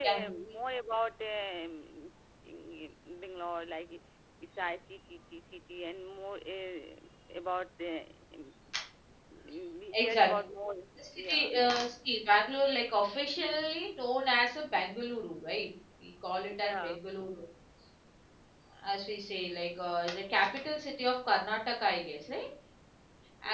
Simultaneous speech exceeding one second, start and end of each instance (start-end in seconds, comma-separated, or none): none